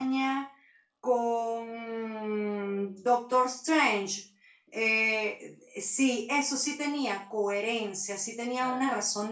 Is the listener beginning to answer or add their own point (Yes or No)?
No